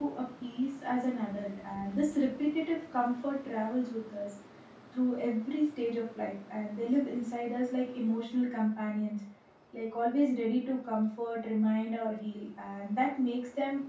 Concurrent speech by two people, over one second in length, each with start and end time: none

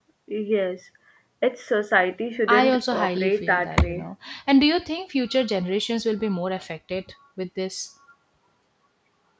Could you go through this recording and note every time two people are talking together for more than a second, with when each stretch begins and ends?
2.5-4.0

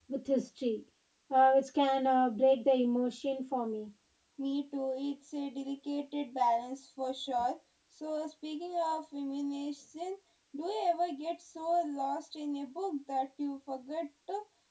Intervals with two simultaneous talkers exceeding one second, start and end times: none

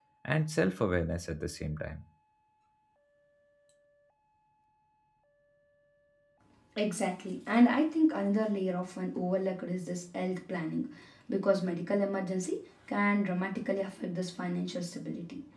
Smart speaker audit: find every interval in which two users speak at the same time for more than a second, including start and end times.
none

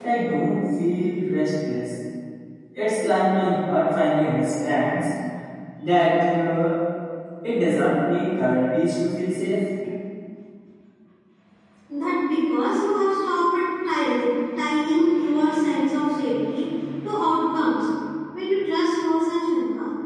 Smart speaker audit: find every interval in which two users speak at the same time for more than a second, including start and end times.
none

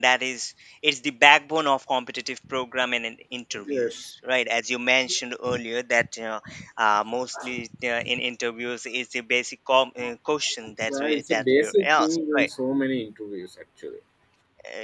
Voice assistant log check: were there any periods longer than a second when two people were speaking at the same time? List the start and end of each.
10.9-12.5

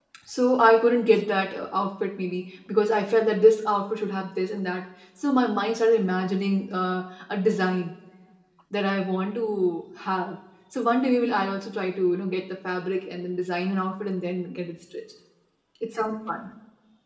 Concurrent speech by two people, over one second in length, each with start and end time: none

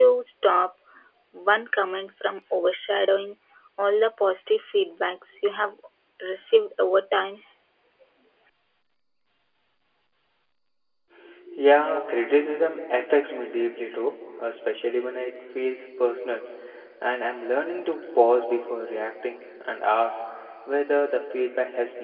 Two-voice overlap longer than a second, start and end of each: none

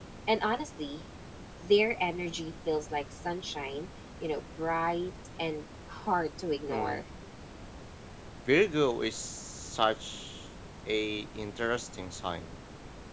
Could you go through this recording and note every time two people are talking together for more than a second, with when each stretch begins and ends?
none

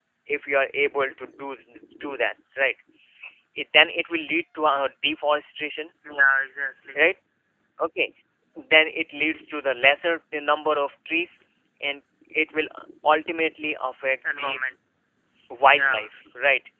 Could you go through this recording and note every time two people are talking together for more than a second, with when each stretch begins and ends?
none

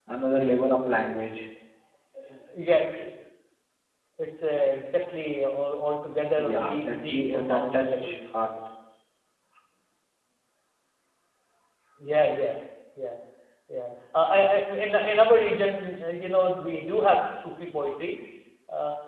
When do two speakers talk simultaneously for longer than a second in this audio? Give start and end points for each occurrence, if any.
6.4-8.2

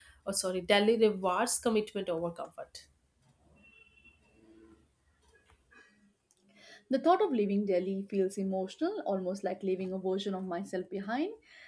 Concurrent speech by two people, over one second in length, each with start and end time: none

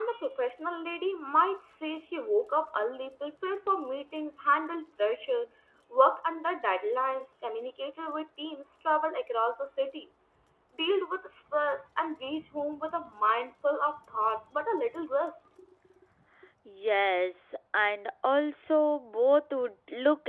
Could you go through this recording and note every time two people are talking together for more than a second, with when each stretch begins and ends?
none

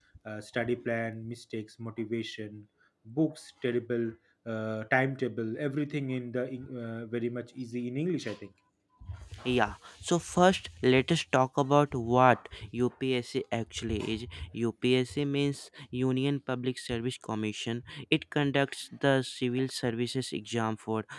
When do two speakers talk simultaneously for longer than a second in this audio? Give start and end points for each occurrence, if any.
none

